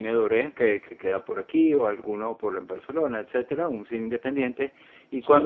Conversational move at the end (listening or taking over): listening